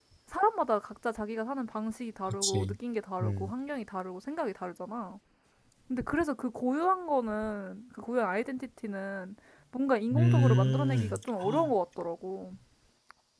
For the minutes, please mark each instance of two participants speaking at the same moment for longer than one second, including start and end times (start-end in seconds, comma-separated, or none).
10.1-11.7